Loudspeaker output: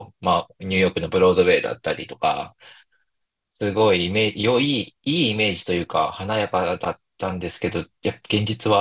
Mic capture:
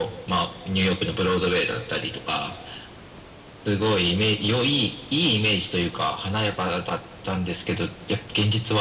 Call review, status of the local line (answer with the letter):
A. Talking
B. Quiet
B